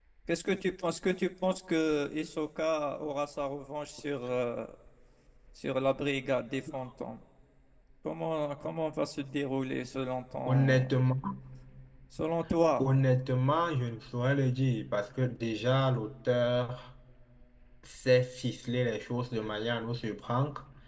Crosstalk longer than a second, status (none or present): none